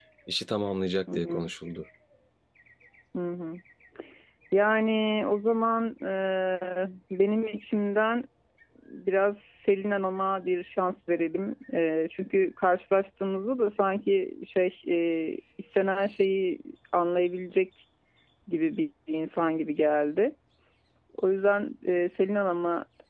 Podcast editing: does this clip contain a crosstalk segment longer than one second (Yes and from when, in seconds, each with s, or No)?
No